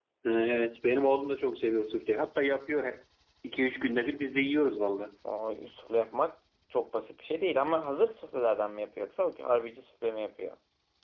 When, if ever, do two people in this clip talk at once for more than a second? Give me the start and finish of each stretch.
none

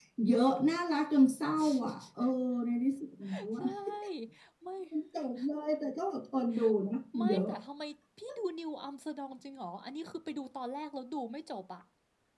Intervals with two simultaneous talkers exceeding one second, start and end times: none

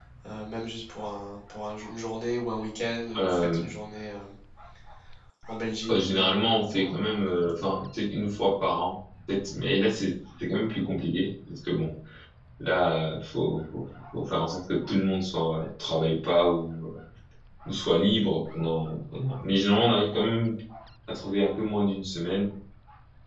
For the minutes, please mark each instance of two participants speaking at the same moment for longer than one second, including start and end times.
5.9-7.2

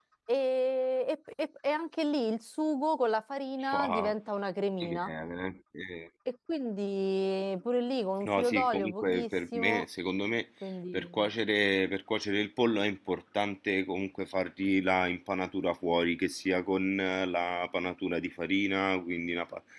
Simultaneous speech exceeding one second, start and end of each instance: 8.2-9.8

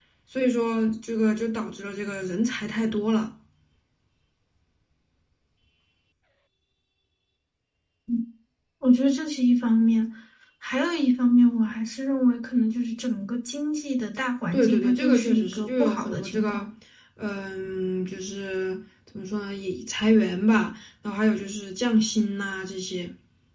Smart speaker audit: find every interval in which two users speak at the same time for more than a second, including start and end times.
14.5-16.7

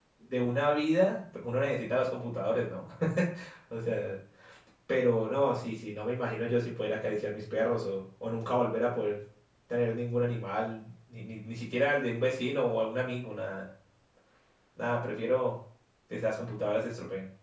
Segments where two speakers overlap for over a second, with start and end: none

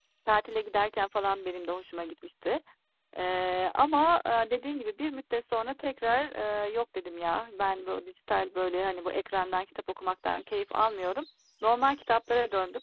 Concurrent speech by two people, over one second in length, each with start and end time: none

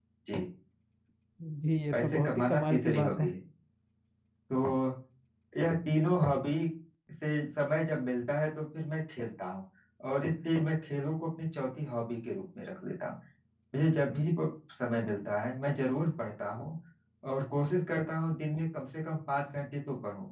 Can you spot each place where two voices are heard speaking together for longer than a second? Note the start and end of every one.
1.9-3.3

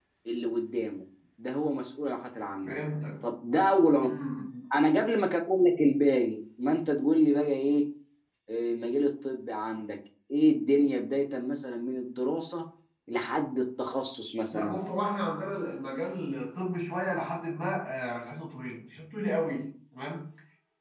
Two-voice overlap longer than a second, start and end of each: none

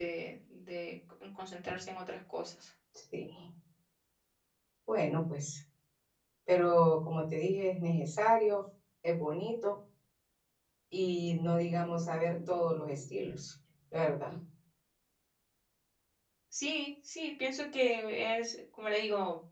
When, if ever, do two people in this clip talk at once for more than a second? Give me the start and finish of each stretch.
none

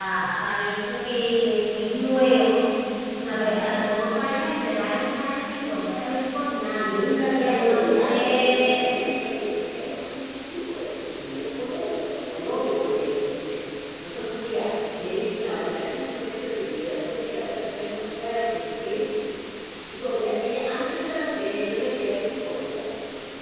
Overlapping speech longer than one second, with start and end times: 7.4-8.9

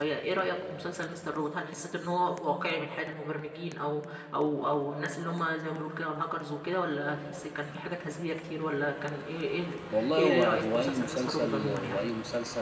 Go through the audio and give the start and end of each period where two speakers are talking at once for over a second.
10.2-12.0

